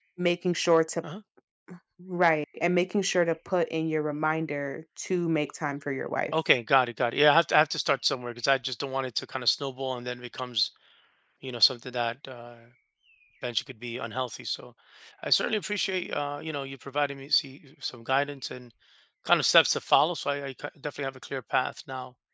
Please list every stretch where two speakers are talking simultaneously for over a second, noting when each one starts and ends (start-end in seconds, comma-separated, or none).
none